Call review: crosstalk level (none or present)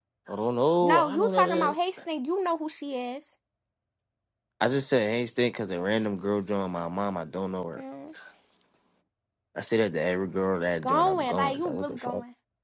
present